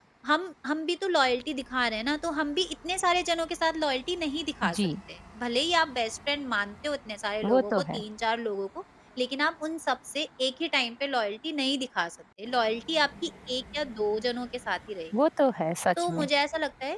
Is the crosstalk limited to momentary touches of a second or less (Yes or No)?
Yes